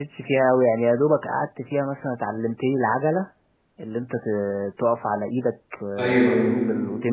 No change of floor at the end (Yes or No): Yes